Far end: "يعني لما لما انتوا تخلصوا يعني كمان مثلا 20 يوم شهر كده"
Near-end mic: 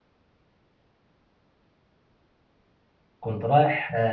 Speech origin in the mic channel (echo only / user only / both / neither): user only